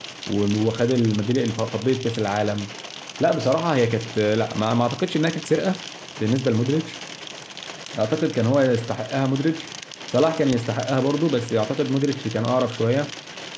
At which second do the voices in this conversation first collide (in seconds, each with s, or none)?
none